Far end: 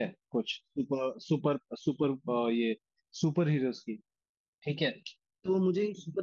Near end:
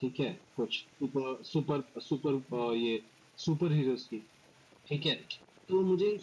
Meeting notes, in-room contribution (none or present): none